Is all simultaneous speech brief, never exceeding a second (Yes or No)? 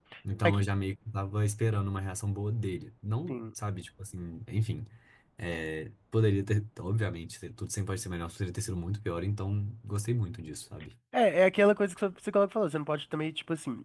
Yes